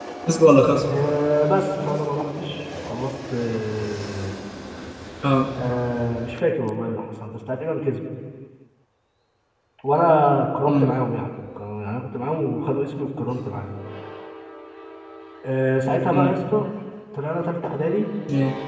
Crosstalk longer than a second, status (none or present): none